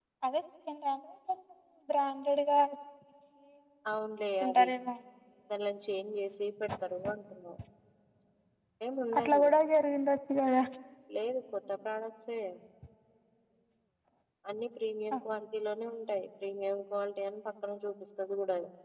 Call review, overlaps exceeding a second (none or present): none